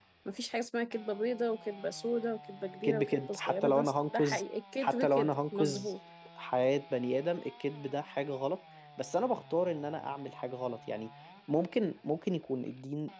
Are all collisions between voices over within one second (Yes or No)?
No